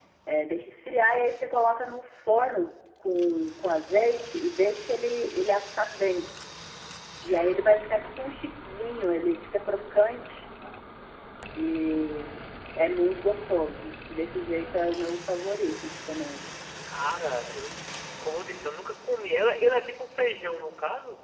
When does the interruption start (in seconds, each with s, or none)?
none